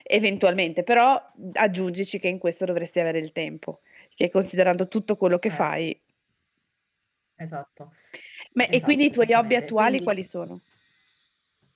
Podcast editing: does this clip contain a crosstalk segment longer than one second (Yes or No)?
Yes